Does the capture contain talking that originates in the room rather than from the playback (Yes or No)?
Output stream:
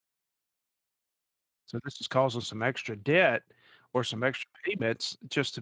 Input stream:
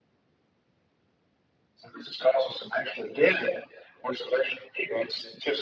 No